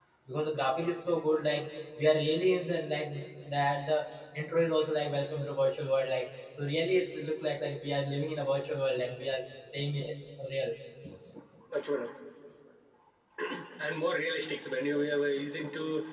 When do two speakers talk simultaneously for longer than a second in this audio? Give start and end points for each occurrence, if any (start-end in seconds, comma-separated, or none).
none